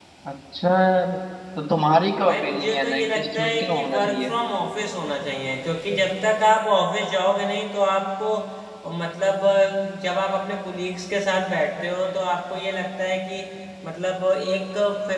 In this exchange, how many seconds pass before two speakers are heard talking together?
2.3 s

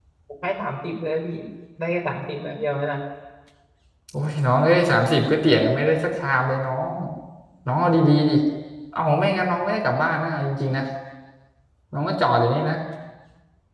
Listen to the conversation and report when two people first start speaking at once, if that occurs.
none

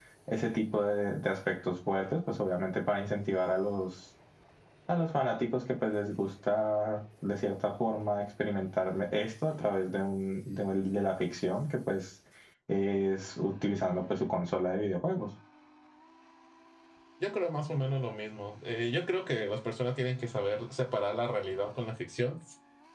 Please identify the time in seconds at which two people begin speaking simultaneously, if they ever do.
none

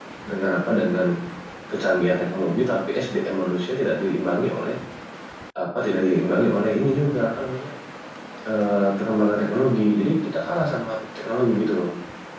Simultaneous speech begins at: none

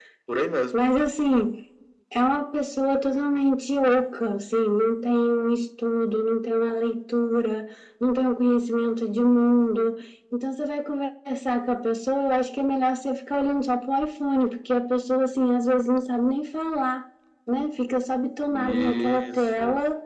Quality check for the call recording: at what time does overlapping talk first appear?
18.5 s

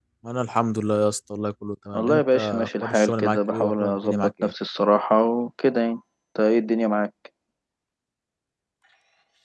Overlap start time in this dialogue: 1.9 s

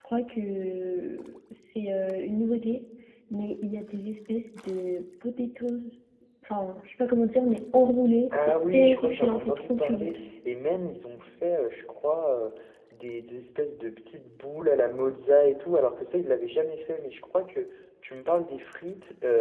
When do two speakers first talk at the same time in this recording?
8.3 s

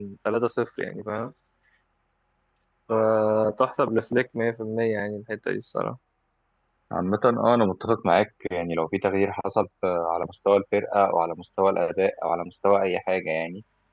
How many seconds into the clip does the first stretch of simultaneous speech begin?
none

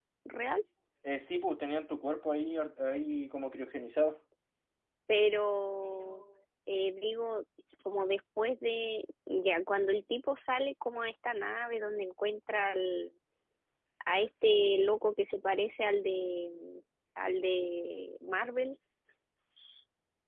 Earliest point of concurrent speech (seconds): none

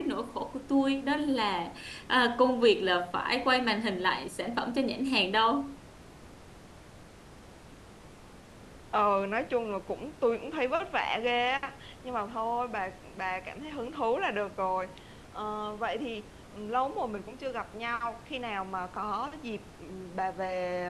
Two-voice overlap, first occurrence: none

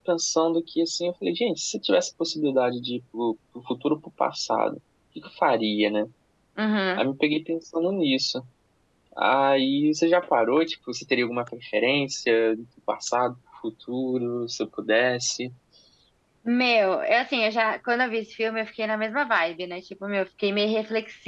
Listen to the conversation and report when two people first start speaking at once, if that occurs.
none

